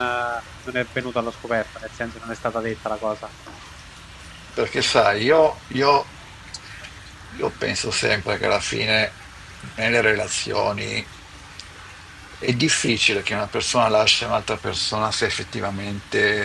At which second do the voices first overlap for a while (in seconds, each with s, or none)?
none